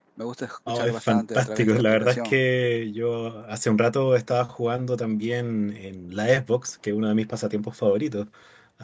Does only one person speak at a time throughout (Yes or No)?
No